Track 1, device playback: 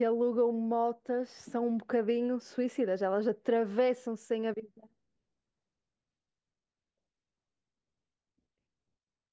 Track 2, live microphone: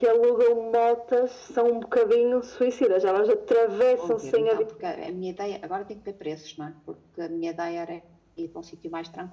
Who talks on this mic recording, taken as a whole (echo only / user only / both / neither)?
both